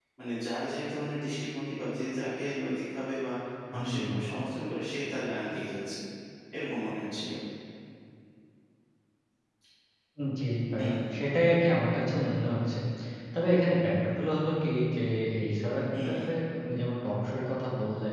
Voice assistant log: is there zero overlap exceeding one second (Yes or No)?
Yes